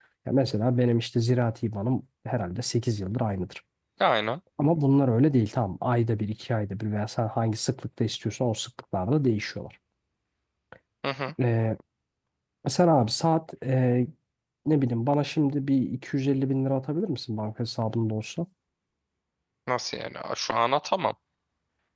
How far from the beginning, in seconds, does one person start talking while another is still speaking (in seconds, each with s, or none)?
none